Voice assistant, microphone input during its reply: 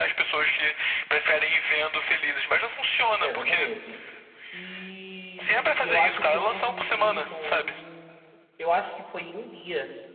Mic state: both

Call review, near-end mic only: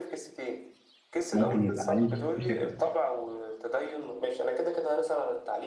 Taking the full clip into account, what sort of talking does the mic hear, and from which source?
both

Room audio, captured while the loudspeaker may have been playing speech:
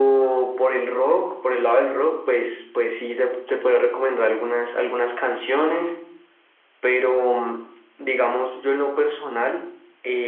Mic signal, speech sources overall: echo only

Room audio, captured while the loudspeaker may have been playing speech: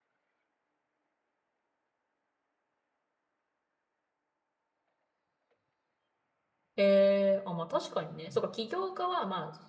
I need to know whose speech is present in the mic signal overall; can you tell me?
user only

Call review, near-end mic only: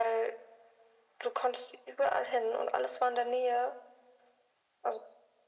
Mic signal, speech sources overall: echo only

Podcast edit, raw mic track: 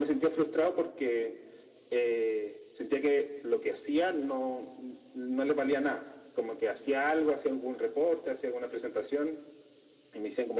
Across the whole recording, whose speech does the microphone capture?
echo only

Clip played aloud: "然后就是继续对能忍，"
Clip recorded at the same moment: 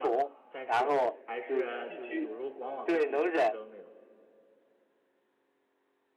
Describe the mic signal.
both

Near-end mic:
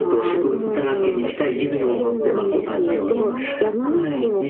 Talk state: both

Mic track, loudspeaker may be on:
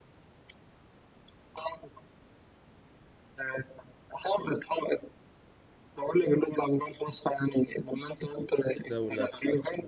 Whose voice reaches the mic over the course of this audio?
both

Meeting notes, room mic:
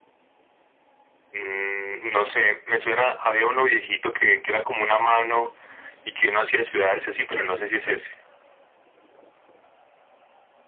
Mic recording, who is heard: echo only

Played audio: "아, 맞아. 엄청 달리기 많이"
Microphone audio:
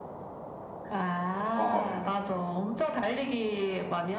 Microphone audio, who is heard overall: both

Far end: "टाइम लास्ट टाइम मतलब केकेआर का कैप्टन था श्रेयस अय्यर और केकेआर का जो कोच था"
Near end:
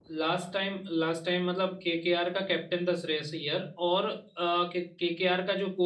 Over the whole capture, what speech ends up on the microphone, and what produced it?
echo only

